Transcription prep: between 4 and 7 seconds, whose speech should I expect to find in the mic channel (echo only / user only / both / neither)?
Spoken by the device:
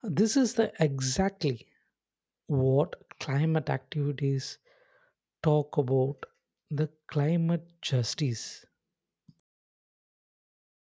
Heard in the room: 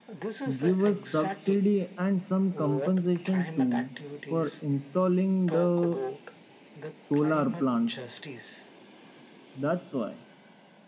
both